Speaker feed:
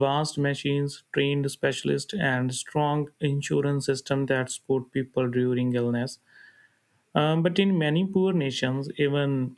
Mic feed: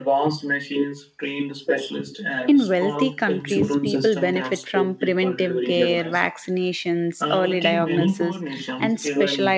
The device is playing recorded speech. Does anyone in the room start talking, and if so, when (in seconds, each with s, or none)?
2.5 s